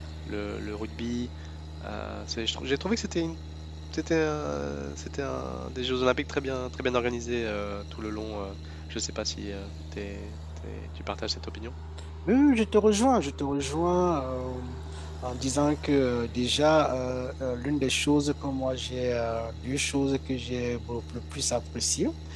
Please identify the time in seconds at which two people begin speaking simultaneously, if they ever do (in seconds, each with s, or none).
none